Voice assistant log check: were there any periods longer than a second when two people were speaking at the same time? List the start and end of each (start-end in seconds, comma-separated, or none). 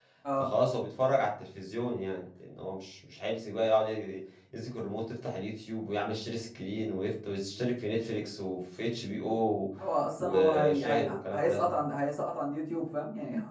10.2-11.6